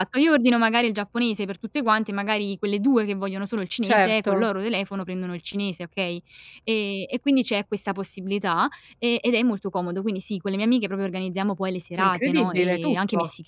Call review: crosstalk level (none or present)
present